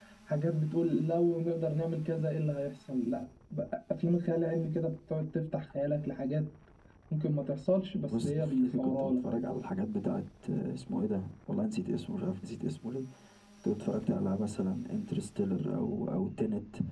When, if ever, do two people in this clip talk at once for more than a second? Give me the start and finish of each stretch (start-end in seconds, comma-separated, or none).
8.1-9.2